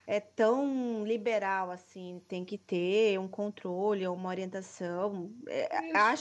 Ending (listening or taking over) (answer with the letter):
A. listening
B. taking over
A